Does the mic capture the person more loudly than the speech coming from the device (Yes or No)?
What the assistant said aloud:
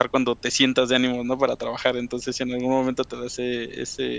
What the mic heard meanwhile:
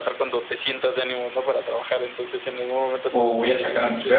Yes